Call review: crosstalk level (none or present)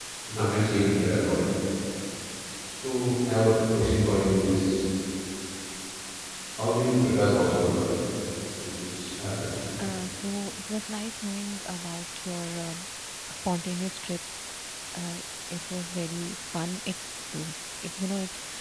none